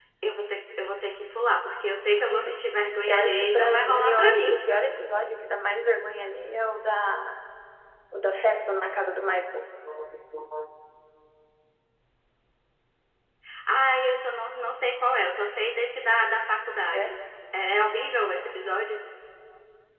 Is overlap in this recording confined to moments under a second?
No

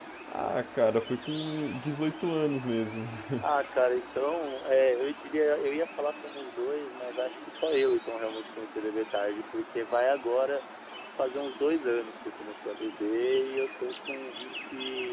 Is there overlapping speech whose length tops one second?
No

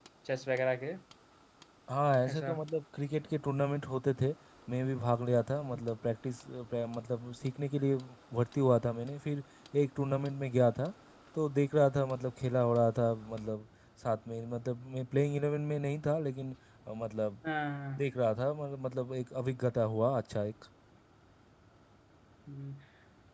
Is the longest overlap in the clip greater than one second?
No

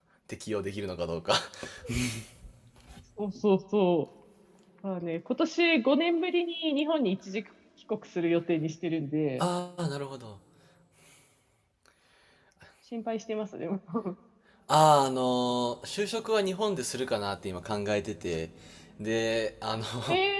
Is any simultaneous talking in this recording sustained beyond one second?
No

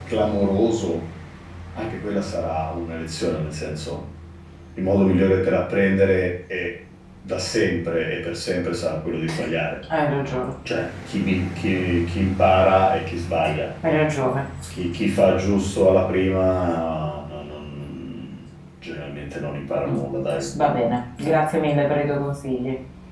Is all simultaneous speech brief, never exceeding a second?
Yes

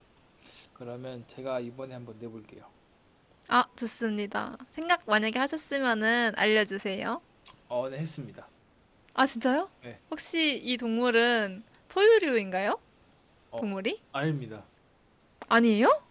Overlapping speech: No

